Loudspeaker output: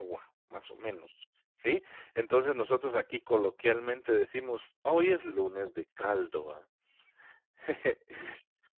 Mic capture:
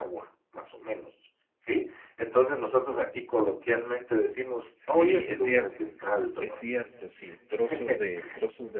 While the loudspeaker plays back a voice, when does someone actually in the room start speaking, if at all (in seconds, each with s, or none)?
4.7 s